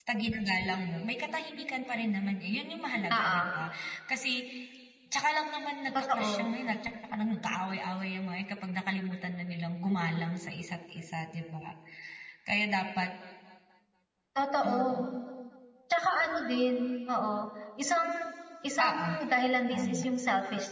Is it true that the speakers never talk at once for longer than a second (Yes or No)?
Yes